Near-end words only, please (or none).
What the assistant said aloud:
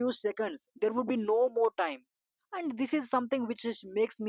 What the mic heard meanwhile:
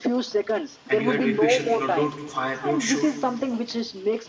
and you have to be patient. You know, don't fire, don't shoot,